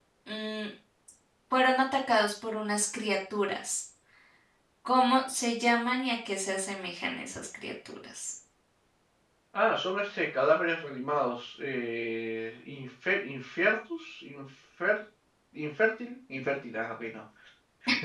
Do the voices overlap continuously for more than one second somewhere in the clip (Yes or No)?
No